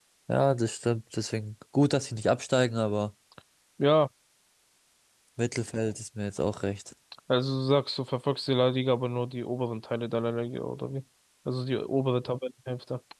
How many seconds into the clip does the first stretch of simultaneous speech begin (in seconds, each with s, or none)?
none